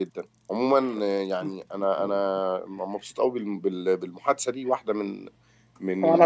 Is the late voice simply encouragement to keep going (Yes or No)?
Yes